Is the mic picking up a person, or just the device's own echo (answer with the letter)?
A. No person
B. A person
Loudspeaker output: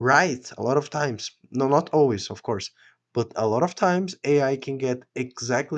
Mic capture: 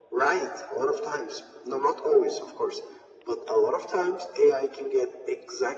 A